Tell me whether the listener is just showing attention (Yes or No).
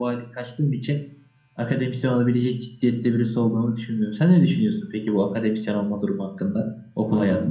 No